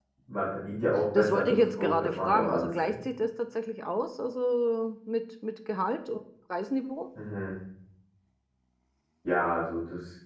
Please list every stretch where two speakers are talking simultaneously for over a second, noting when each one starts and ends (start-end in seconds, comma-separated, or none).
1.1-3.0